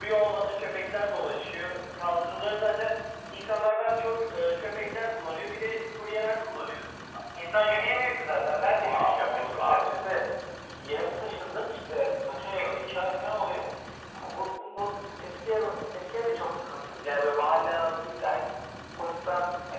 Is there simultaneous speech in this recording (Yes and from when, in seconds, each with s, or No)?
Yes, from 8.8 s